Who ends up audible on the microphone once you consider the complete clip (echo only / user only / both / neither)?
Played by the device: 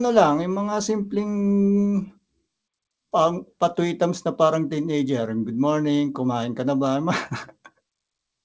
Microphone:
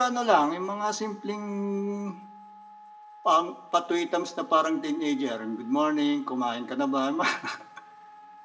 echo only